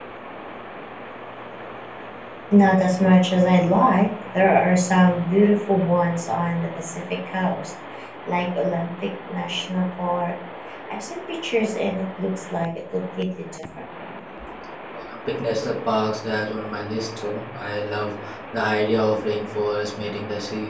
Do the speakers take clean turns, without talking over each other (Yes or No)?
Yes